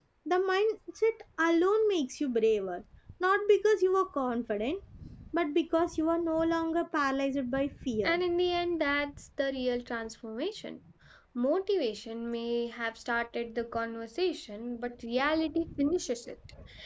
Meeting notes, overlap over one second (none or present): none